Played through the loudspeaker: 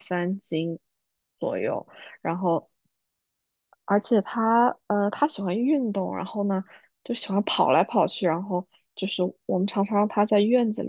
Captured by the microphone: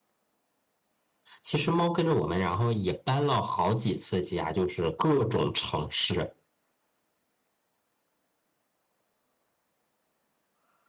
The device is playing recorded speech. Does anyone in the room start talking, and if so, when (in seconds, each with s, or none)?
1.4 s